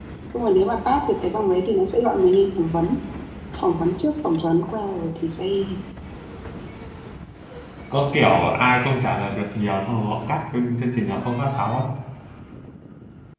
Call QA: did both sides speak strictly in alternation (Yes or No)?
Yes